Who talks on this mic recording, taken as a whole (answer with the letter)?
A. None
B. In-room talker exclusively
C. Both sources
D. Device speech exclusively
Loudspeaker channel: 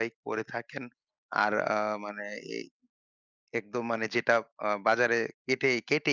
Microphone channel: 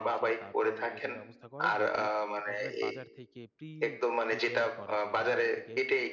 C